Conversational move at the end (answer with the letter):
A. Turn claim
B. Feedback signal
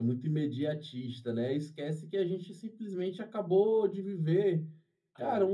B